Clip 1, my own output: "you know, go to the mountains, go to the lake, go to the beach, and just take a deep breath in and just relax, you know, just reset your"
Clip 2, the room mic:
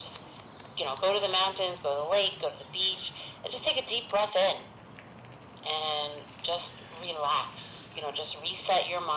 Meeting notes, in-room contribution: none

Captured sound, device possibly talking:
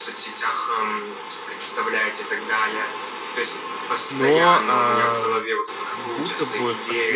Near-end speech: present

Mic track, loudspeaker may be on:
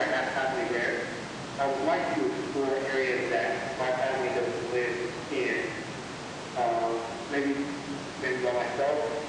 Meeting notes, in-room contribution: none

